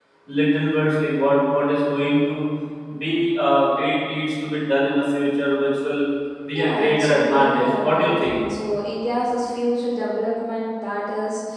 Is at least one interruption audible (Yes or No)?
Yes